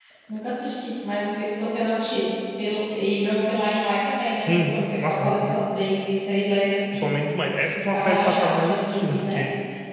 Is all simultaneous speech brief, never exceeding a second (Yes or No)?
No